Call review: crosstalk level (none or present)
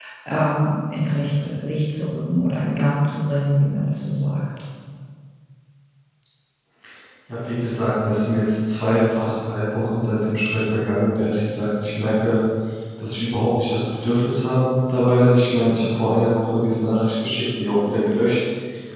none